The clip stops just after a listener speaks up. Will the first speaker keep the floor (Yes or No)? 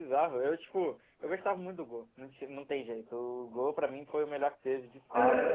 No